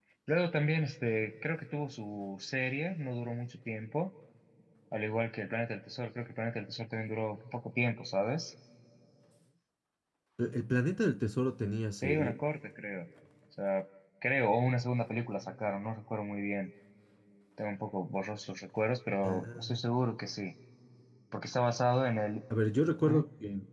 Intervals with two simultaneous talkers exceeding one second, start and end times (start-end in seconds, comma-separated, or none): none